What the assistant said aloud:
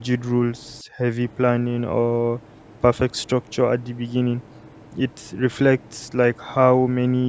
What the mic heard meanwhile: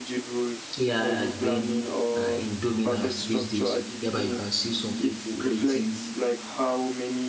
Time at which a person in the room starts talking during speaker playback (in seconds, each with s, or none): 0.8 s